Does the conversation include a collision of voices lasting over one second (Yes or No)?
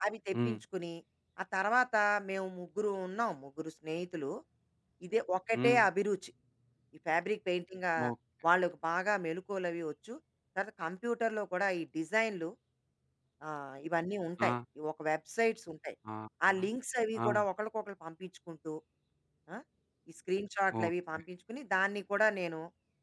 No